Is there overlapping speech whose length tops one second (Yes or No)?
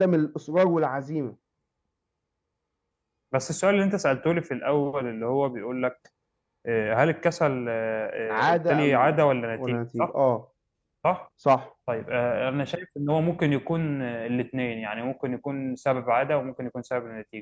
Yes